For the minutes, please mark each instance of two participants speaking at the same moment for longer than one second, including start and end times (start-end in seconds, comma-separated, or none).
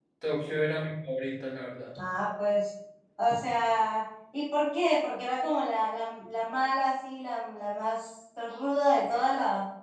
none